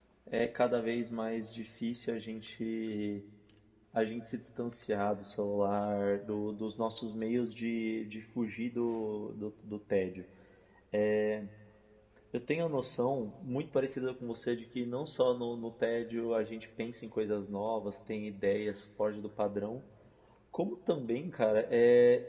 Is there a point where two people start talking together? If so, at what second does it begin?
none

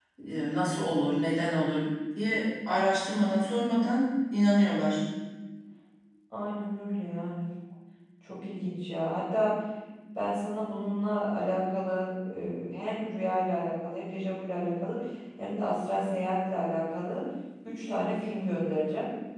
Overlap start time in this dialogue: none

